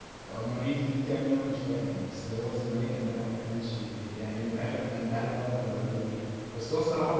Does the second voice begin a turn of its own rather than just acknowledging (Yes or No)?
No